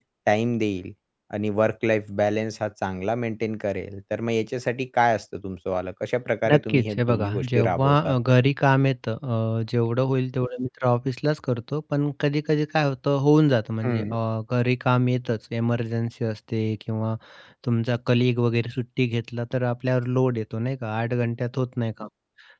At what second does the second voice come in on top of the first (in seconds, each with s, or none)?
6.5 s